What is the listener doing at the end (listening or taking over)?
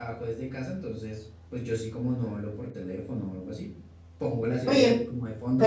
taking over